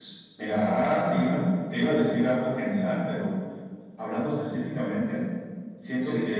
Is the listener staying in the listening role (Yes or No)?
Yes